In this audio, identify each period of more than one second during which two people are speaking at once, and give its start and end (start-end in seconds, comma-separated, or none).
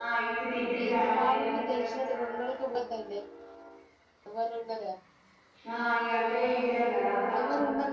0.9-2.2